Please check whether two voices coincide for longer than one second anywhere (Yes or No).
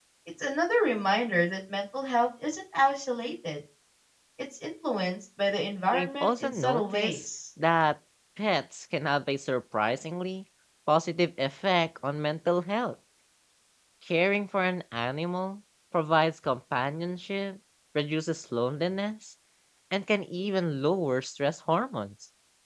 Yes